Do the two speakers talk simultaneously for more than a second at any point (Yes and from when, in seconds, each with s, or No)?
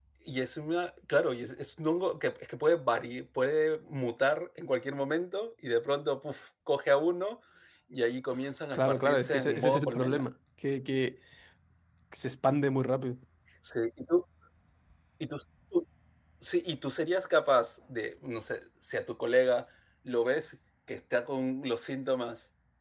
Yes, from 8.7 s